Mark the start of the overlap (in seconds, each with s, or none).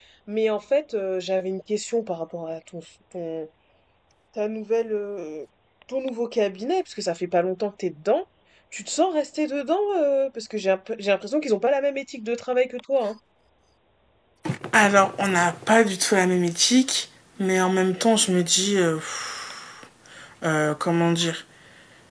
none